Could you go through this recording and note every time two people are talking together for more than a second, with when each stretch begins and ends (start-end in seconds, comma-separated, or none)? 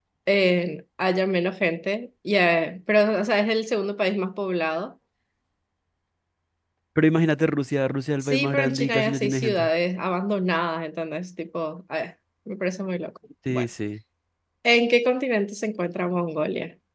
8.2-9.7